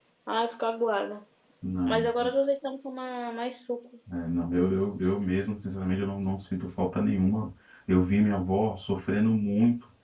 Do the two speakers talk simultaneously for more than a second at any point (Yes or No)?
No